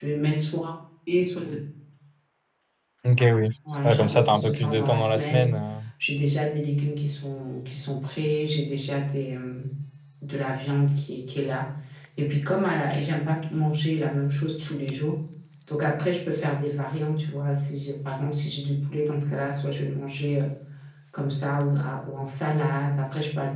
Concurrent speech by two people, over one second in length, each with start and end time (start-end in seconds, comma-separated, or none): 3.8-5.5